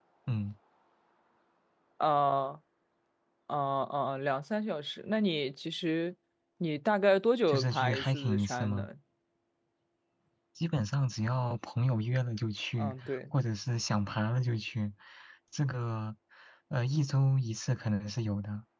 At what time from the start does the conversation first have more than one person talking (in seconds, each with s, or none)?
7.5 s